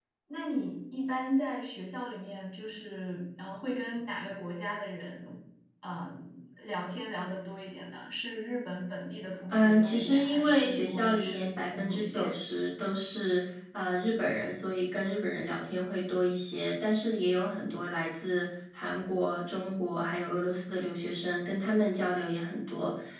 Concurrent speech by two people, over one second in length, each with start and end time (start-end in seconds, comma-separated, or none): 9.5-12.3